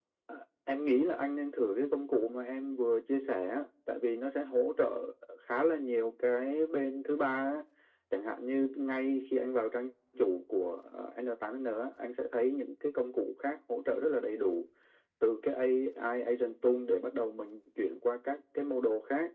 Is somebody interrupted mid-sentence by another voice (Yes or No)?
No